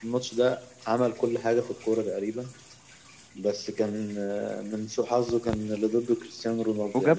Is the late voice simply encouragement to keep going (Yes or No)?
No